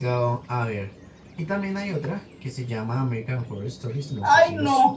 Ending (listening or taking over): taking over